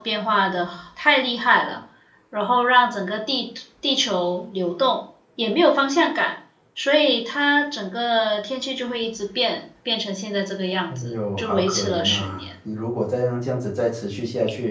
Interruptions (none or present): present